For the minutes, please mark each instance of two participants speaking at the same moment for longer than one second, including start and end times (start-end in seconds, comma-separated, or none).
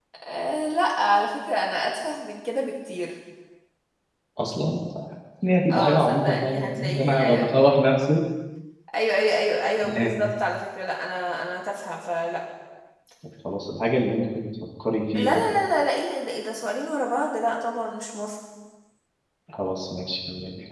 5.7-7.5